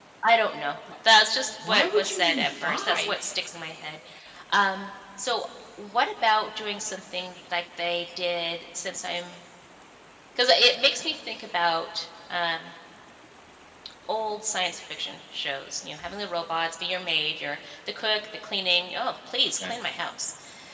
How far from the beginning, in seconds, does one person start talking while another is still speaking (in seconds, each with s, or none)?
1.6 s